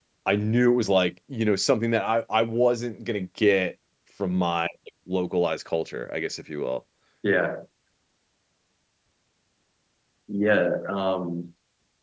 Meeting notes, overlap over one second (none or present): none